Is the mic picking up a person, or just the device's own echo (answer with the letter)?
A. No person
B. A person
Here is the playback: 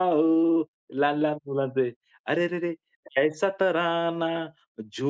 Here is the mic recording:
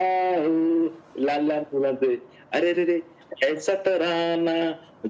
A